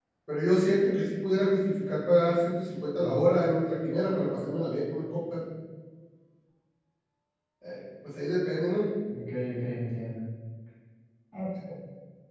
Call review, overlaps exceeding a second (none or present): none